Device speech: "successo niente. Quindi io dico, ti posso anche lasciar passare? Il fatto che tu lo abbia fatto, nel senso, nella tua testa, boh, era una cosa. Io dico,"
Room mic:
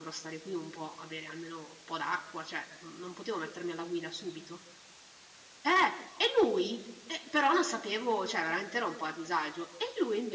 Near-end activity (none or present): present